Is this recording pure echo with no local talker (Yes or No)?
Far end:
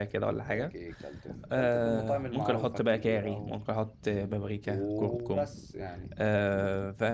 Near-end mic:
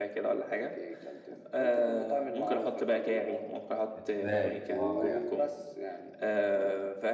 No